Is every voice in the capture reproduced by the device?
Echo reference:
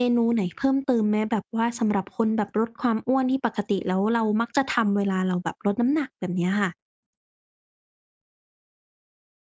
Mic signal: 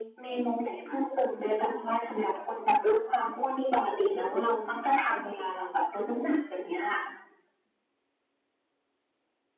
Yes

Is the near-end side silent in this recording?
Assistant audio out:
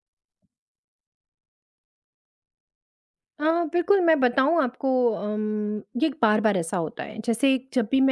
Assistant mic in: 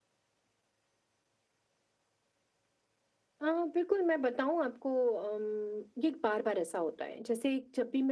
Yes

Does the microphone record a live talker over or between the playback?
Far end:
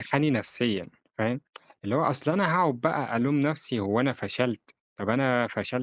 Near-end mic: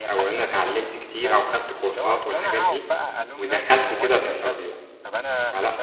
Yes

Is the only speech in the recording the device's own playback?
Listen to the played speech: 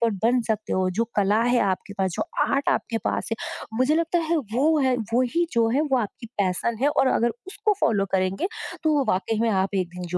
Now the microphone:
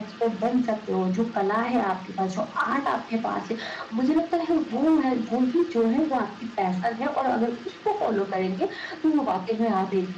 Yes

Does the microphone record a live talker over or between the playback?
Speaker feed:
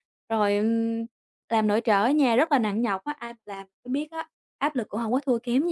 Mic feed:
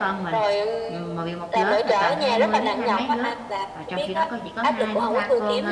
Yes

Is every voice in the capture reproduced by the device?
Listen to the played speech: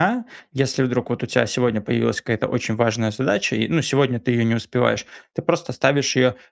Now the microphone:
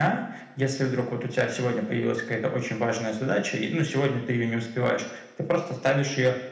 Yes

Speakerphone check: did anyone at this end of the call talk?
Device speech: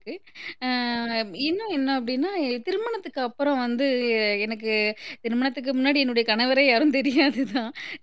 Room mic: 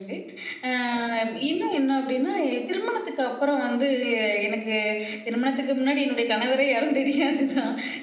No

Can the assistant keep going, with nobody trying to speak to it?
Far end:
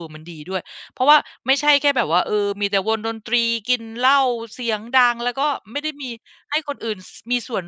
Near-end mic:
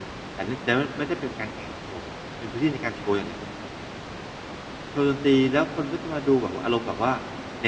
No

